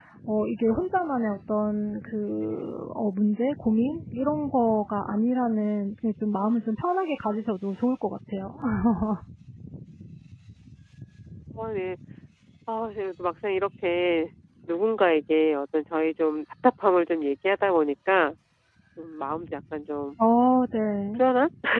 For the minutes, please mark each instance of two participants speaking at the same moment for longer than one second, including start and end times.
none

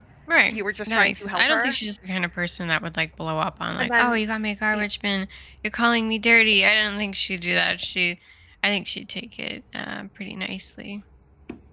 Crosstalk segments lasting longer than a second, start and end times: 0.5-1.8

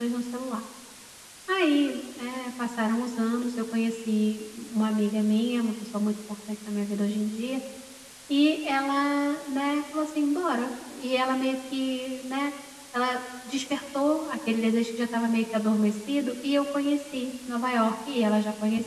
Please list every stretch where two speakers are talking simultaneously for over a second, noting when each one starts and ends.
none

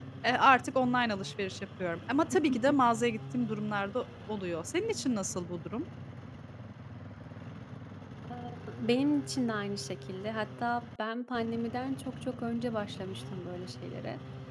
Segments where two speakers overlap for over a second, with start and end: none

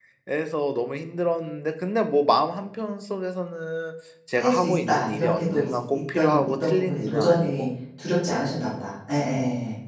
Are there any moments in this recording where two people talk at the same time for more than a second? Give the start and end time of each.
4.3-7.7

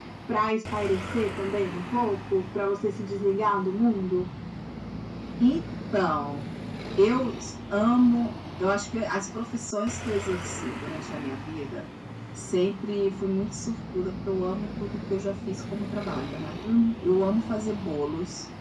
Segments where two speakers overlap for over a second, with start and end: none

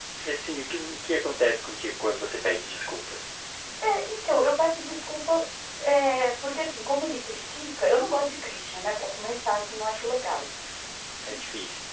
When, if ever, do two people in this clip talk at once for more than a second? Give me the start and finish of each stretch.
none

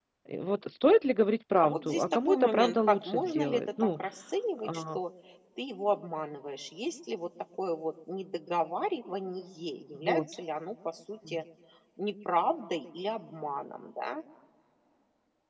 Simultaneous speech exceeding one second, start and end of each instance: 1.6-4.0

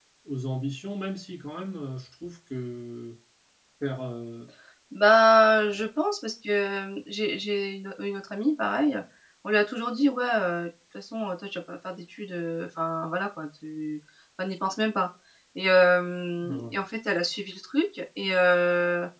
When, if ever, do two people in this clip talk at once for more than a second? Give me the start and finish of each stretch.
none

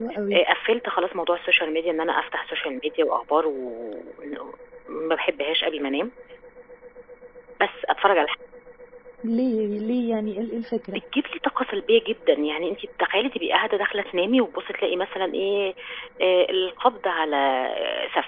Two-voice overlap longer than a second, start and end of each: none

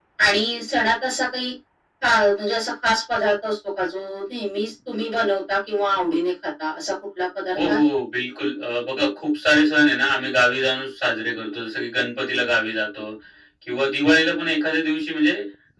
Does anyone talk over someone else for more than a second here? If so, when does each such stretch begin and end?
none

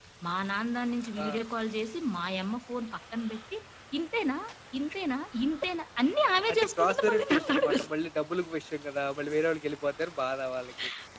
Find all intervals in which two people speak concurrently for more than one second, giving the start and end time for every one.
6.5-7.9

